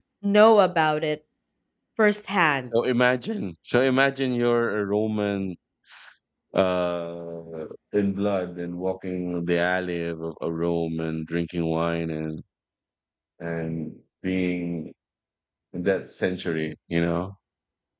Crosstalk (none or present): none